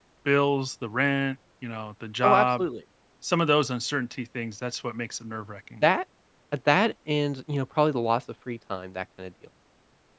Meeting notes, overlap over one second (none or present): none